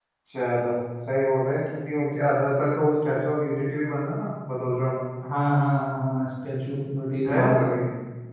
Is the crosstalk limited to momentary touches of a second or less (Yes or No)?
Yes